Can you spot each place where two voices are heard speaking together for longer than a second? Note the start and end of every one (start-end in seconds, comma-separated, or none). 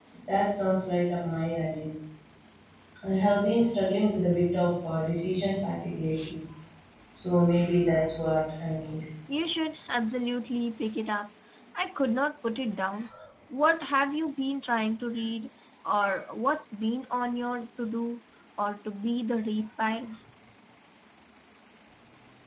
none